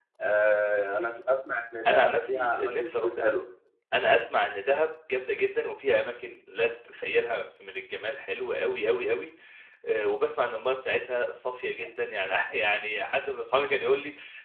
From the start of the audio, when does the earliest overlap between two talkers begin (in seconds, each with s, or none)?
1.9 s